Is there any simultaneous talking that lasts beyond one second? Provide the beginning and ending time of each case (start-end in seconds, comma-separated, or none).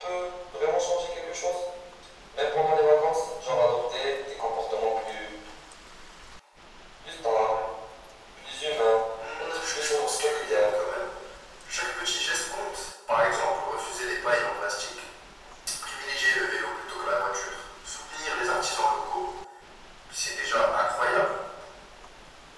9.4-10.7